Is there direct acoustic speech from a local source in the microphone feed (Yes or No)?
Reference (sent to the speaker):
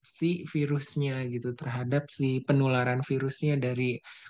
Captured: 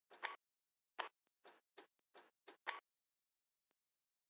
No